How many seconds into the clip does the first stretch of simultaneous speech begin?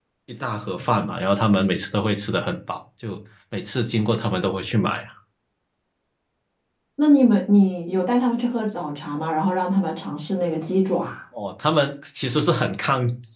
none

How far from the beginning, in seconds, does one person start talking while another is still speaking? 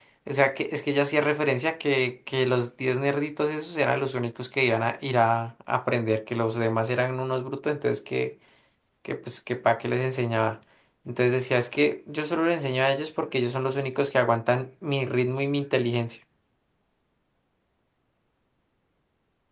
none

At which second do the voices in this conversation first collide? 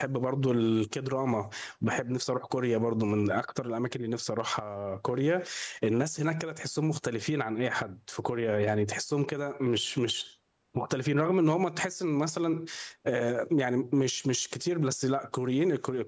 none

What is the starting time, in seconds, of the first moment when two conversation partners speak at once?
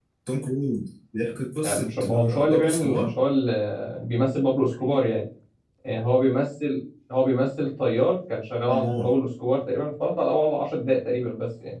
1.6 s

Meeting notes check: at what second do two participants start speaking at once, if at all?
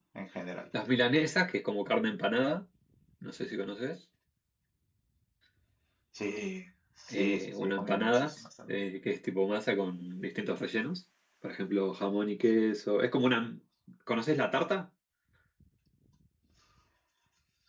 7.1 s

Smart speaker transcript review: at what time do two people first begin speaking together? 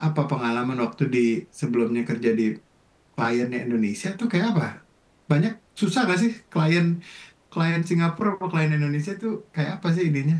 none

